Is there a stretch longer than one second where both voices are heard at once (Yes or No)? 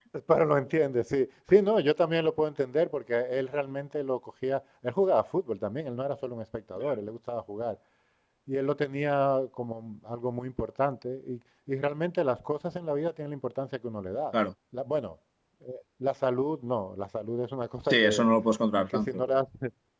No